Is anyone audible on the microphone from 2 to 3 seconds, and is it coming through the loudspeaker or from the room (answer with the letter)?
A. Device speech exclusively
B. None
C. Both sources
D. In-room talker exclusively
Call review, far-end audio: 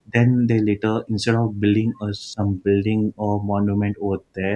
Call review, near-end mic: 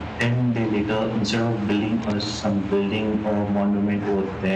A